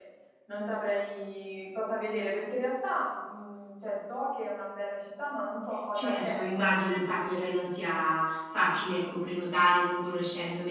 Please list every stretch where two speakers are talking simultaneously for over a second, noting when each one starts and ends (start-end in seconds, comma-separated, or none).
5.9-7.5